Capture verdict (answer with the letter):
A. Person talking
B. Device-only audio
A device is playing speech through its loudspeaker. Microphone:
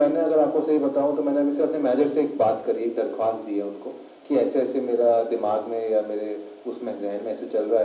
B